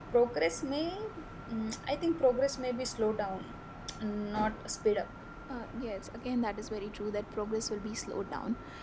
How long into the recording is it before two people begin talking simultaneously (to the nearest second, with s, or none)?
none